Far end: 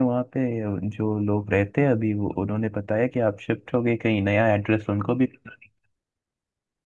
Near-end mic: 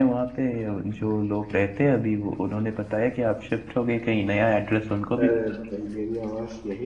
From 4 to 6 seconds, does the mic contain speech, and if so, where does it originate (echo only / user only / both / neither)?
both